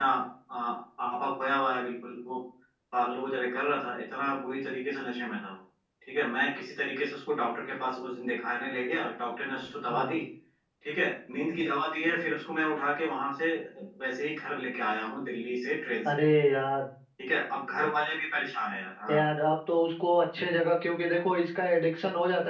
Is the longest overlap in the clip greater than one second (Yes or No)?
No